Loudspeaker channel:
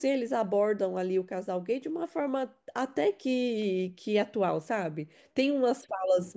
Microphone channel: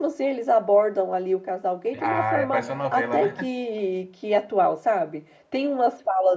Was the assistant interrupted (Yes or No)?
Yes